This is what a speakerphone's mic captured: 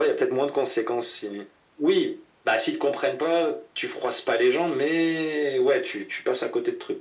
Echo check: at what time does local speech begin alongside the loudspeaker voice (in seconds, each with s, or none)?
none